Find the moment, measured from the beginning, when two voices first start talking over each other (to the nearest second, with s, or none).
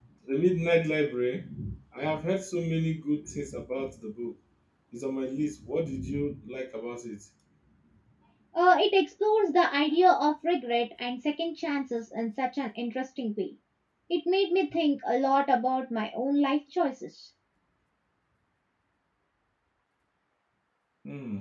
none